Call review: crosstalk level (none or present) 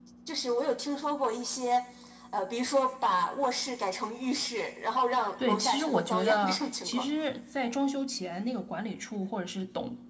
present